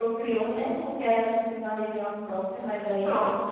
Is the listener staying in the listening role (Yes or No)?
Yes